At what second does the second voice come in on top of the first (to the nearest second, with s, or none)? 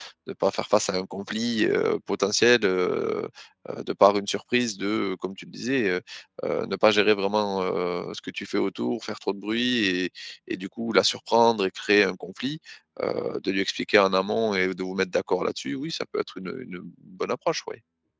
none